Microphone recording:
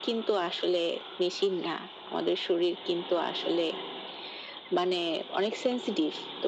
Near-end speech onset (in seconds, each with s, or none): none